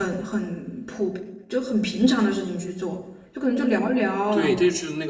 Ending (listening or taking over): taking over